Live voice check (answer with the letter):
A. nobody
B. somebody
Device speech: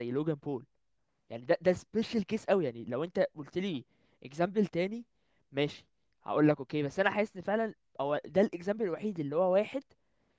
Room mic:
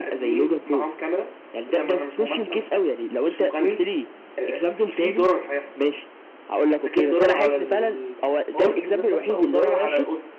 B